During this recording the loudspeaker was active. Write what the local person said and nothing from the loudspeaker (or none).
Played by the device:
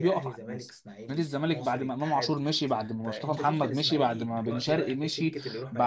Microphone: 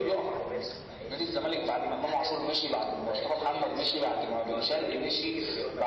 none